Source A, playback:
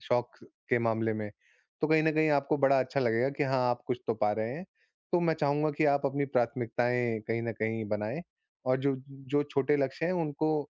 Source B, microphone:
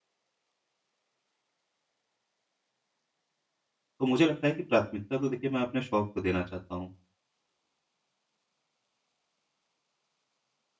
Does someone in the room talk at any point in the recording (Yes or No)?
Yes